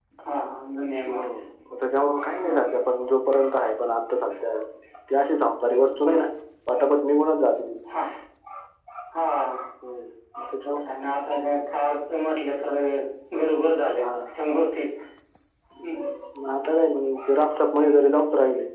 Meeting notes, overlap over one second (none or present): none